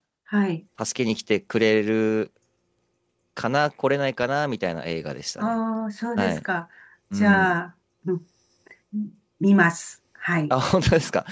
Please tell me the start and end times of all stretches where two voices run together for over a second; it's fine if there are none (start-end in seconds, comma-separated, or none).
none